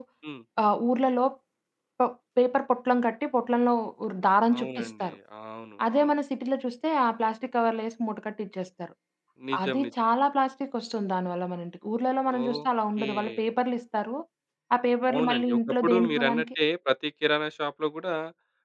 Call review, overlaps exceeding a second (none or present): present